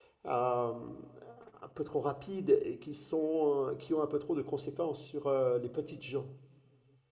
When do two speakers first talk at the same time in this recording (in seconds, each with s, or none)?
none